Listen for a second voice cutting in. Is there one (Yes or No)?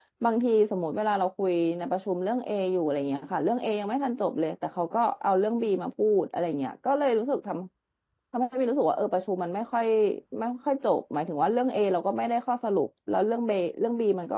No